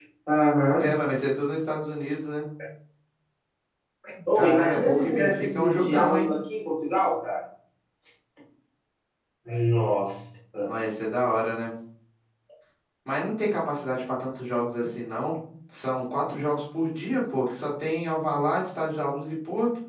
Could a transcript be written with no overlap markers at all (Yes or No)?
No